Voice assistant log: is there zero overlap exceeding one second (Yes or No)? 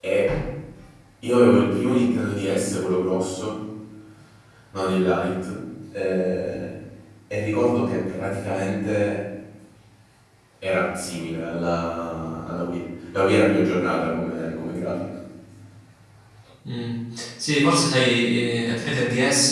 Yes